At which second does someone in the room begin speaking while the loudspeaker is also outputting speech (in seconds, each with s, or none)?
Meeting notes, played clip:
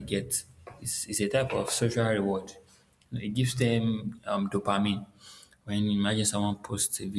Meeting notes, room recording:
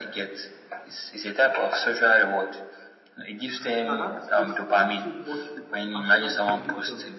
3.8 s